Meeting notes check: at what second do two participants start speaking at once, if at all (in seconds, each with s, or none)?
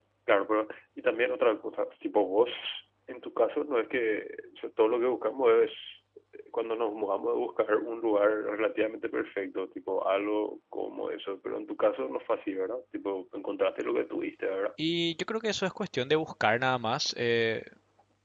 none